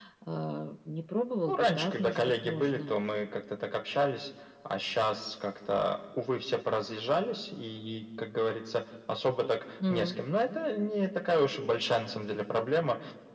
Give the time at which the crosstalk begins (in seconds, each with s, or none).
1.5 s